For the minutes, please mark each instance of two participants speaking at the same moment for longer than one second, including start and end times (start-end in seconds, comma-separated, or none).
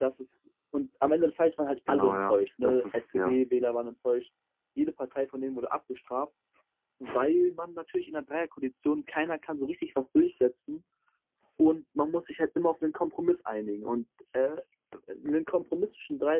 1.9-3.4